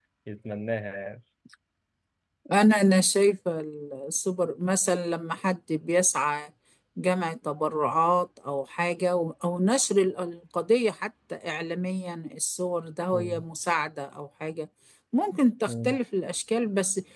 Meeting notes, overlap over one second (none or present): none